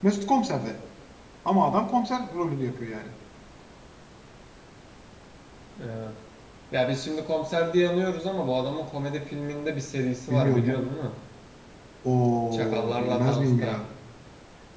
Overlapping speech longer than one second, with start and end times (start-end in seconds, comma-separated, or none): 12.5-13.8